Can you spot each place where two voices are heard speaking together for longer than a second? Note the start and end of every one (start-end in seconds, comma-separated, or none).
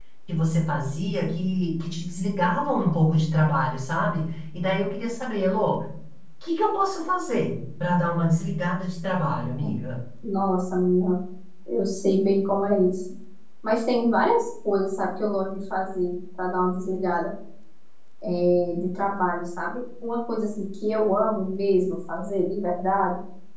none